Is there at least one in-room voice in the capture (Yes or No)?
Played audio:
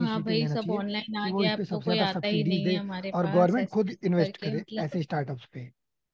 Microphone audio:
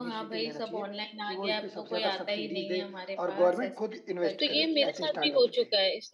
Yes